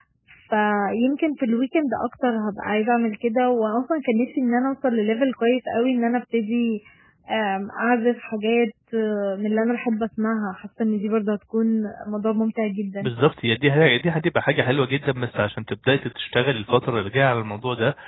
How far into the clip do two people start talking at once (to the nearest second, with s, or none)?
none